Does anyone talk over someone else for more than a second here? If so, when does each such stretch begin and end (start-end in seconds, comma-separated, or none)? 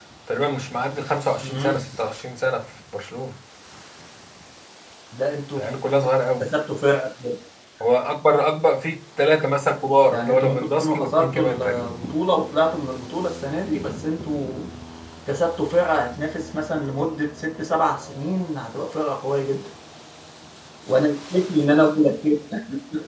10.1-11.9